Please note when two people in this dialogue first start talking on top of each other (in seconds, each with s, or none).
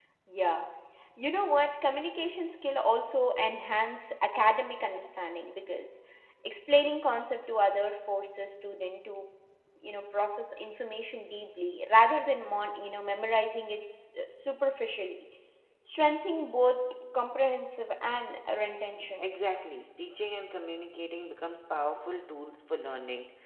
none